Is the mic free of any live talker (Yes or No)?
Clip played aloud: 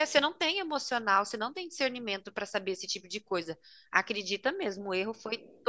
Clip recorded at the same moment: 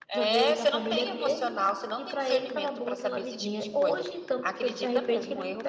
No